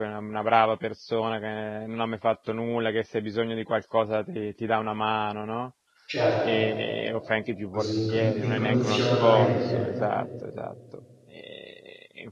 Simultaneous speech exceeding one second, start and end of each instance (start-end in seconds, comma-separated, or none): 7.7-9.8